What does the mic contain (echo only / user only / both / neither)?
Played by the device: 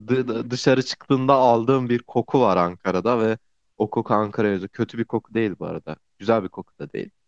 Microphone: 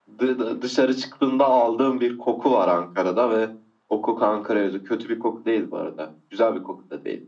echo only